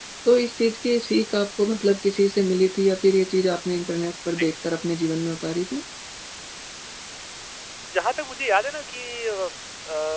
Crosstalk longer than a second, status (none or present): none